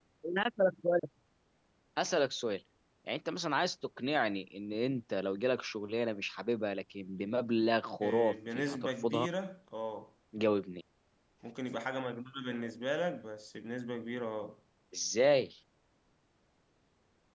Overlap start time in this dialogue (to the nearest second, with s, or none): 8 s